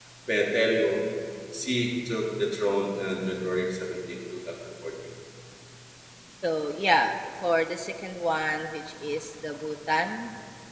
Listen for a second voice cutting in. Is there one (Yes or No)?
No